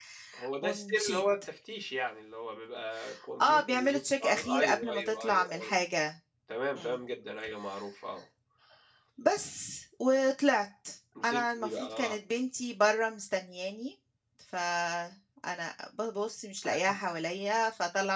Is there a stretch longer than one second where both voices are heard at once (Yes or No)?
Yes